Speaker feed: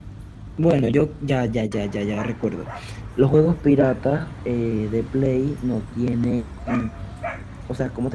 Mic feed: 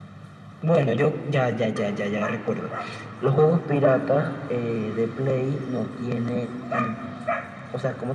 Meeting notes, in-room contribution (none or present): none